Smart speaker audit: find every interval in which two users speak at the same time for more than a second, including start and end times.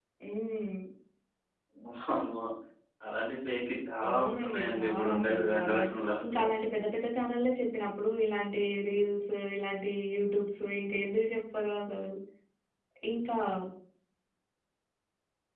4.1-5.9

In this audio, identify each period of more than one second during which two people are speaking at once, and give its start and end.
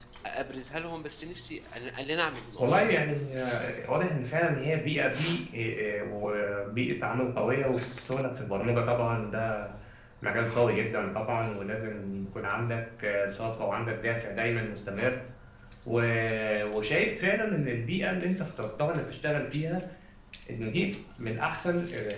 none

